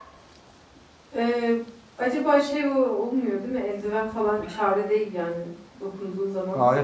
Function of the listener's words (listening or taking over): taking over